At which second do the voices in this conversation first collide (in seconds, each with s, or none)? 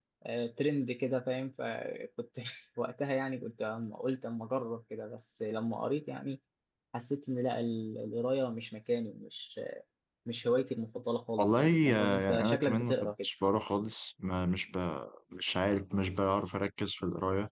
11.4 s